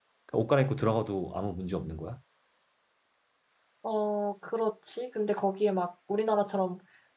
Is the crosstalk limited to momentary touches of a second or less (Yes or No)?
Yes